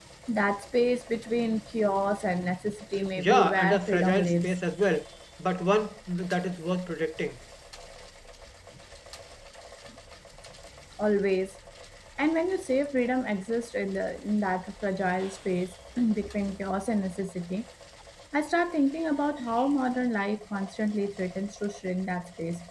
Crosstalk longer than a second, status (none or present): present